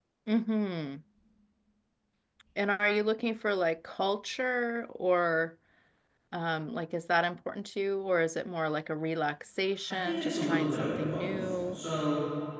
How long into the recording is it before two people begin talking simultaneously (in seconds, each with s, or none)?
9.9 s